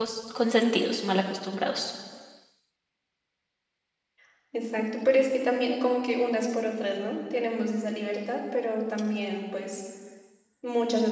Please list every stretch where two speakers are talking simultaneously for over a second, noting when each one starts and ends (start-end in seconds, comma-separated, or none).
none